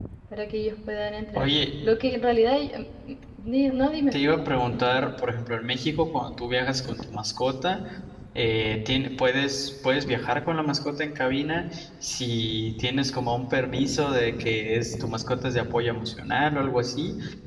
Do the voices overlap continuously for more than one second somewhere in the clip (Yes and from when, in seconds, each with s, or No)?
No